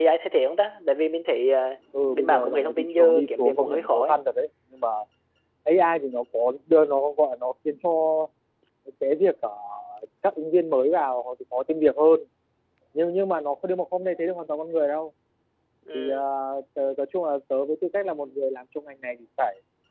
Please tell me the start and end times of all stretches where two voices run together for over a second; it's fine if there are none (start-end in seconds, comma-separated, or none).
2.1-4.1